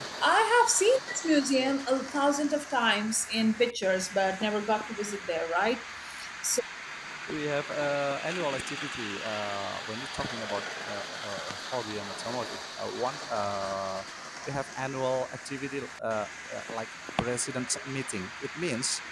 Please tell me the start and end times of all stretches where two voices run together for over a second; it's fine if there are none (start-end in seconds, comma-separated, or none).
none